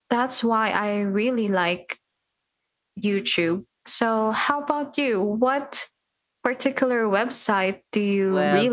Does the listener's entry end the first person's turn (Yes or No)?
Yes